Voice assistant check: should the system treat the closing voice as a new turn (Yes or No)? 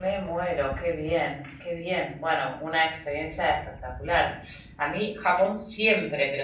No